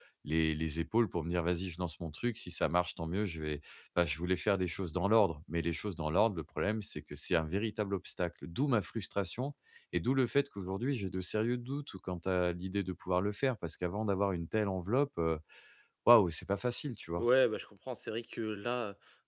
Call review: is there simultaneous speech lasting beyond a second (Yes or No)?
No